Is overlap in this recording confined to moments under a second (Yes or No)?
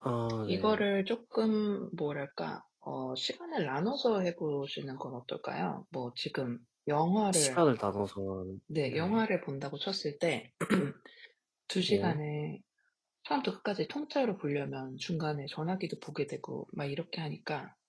Yes